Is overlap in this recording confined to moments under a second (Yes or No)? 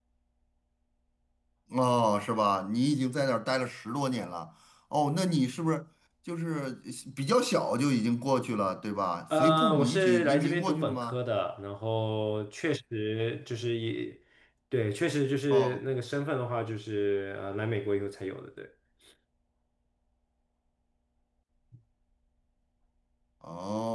No